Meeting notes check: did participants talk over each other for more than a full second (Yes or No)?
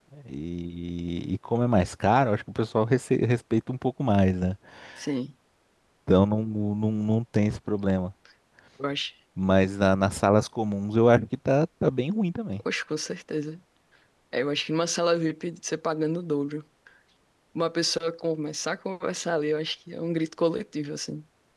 No